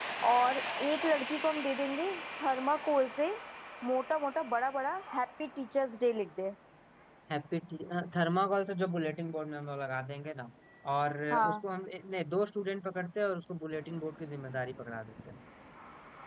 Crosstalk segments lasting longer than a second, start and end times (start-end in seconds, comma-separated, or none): none